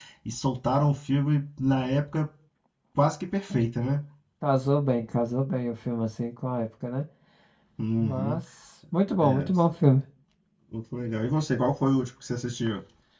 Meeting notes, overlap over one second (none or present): none